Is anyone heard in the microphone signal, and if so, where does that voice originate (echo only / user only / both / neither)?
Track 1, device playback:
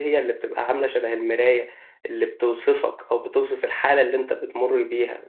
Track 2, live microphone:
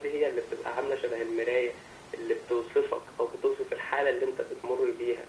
echo only